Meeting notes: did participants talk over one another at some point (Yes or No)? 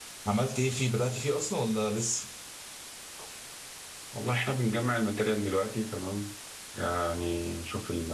No